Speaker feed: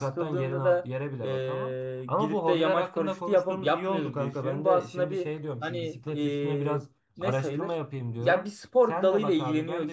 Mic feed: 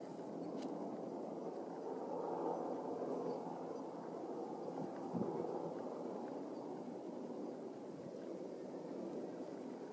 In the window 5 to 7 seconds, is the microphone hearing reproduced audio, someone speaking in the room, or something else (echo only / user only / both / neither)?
neither